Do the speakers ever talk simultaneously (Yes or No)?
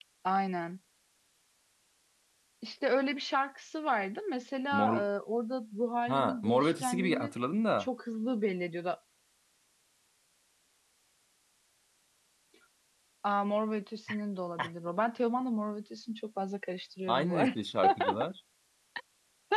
Yes